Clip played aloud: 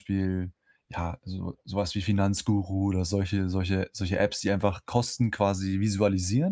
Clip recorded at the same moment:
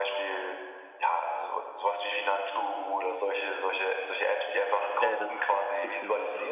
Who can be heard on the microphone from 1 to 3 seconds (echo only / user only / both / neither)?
echo only